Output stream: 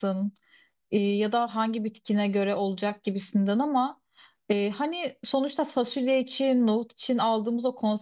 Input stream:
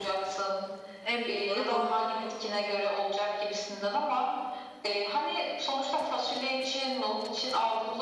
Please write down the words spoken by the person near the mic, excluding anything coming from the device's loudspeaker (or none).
En büyük soru bu.